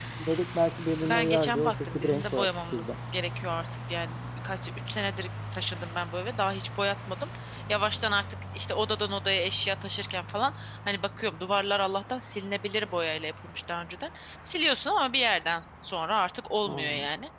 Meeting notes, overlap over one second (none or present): present